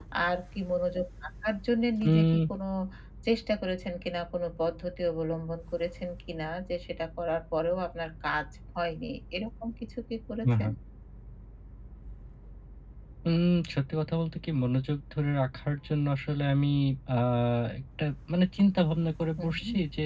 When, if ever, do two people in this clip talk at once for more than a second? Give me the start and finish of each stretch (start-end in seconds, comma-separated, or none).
none